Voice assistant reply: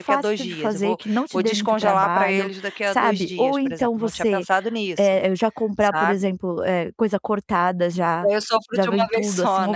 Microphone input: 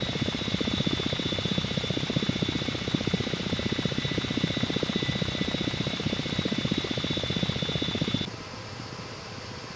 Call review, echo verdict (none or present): none